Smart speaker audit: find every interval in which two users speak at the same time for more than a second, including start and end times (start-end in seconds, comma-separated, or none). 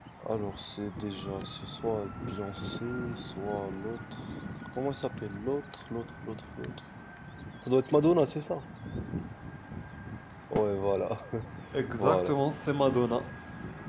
none